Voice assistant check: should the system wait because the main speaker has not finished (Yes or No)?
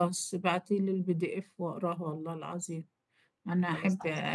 Yes